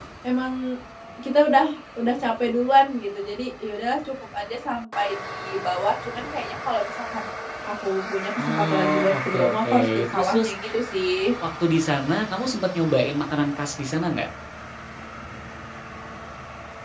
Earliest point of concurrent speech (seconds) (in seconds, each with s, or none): 8.4 s